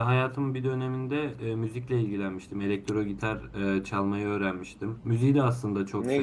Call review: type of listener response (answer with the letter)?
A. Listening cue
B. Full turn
A